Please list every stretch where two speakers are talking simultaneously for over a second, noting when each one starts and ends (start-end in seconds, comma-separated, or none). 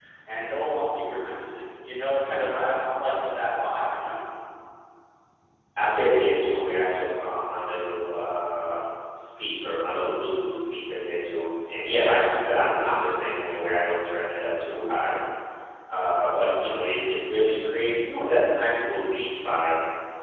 none